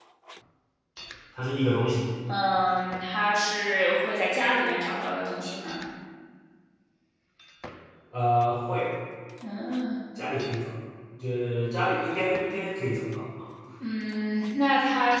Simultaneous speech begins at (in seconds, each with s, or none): none